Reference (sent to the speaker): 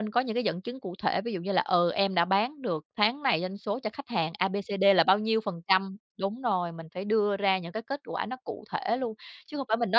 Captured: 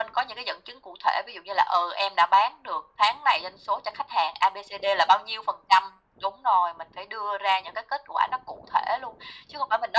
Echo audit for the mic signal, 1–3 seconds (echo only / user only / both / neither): echo only